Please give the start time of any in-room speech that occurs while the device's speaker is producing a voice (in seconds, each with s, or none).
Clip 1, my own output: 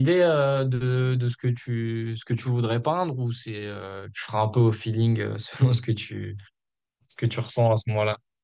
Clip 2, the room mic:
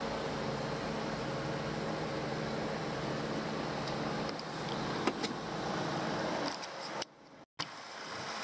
none